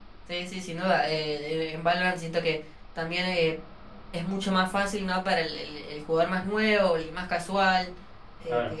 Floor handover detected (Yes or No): No